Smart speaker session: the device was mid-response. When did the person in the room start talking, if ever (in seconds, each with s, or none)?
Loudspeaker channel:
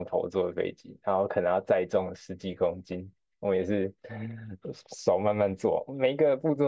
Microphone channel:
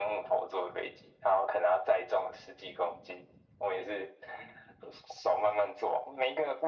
none